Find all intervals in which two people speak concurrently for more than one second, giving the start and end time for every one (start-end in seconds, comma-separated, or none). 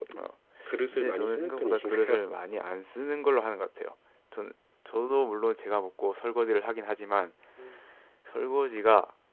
0.9-2.2